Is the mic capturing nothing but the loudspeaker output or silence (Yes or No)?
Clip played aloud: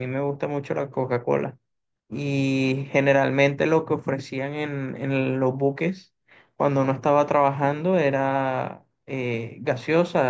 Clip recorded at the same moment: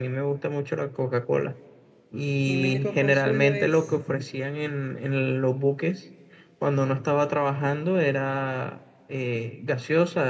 No